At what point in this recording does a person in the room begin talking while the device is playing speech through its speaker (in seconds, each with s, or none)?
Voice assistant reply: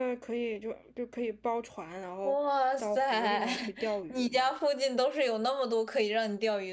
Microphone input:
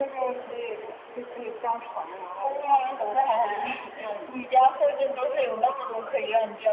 none